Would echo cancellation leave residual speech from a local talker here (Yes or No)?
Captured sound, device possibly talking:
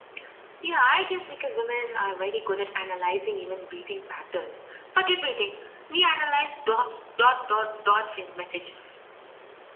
No